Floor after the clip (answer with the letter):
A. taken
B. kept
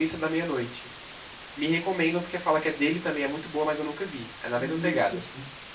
A